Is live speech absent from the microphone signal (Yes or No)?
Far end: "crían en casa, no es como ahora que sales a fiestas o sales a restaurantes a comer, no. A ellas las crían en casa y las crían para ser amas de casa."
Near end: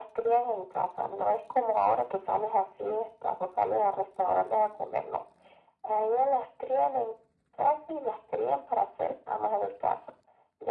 Yes